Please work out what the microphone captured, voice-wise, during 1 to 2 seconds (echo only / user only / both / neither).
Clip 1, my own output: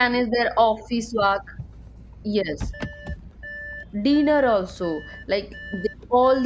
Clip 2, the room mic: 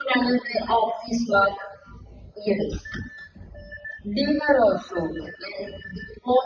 echo only